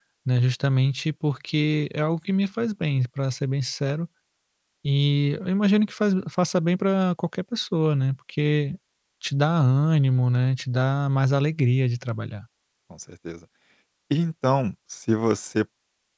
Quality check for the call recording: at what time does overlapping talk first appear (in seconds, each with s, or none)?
none